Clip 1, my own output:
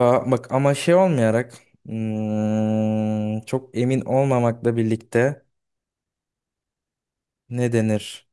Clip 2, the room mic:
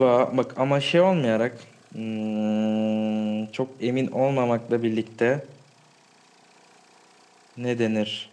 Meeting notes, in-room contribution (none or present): none